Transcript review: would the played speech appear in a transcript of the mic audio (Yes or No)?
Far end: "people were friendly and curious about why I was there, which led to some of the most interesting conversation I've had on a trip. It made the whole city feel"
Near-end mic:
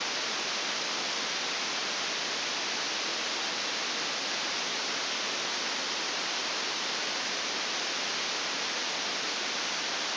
No